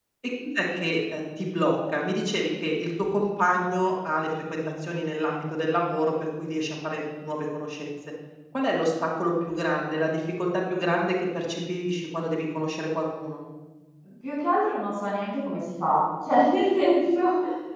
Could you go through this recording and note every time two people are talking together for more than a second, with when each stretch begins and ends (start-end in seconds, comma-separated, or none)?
none